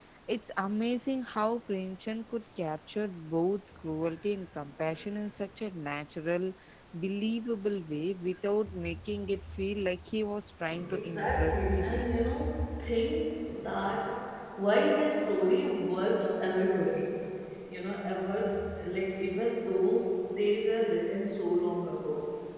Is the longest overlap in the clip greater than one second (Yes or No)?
Yes